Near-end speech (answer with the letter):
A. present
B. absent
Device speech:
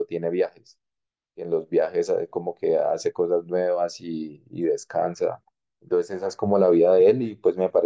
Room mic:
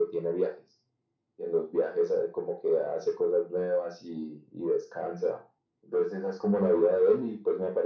B